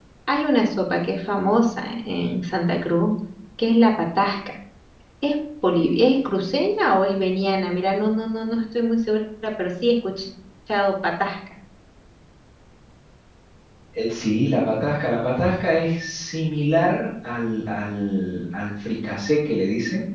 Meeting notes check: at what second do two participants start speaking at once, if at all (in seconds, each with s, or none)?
none